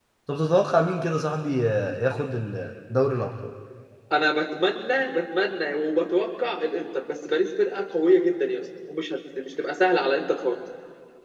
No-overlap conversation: Yes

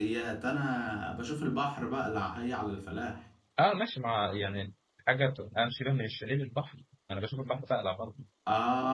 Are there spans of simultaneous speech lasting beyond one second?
No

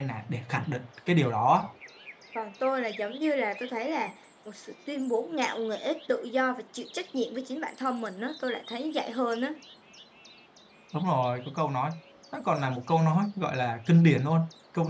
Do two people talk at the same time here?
No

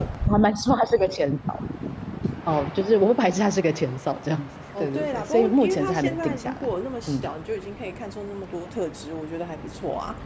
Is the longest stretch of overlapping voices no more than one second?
No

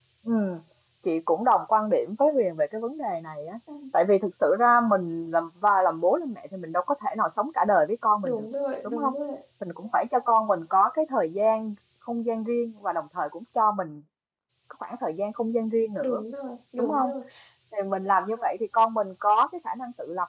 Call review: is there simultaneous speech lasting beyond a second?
No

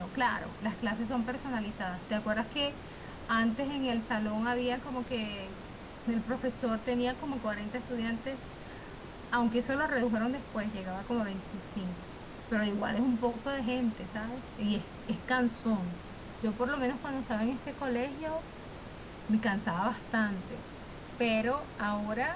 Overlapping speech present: No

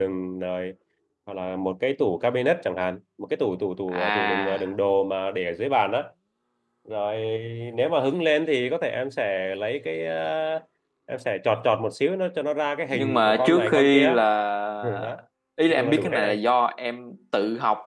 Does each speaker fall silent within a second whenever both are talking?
No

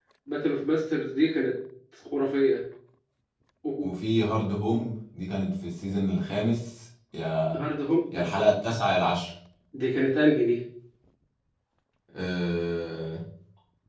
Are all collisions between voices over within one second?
Yes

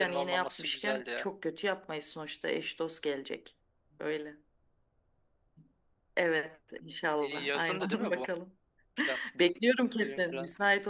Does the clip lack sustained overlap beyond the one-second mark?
No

